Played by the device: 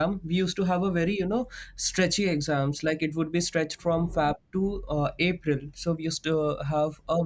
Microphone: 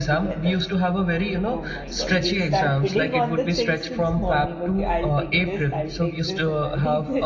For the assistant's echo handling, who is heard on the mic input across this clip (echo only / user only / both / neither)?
both